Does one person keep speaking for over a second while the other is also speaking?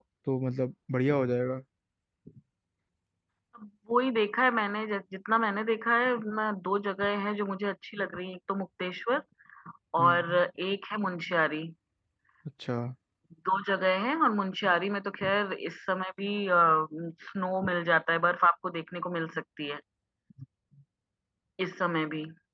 No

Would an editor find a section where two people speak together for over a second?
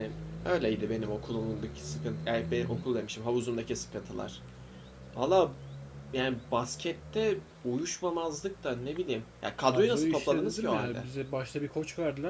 Yes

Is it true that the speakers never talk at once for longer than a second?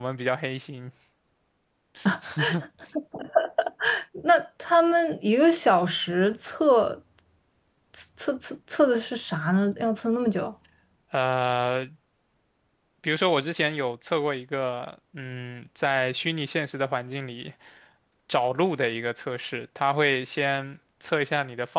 Yes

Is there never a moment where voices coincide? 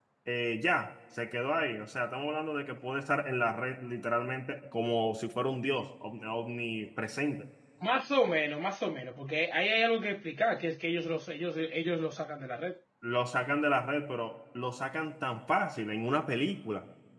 Yes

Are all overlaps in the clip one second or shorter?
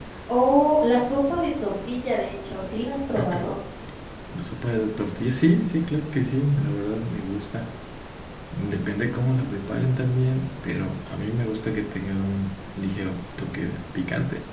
Yes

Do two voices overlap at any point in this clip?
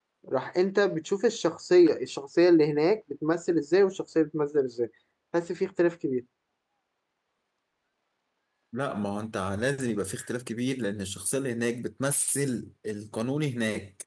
No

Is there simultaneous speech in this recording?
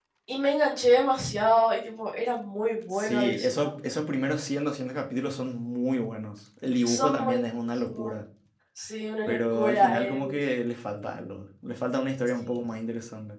Yes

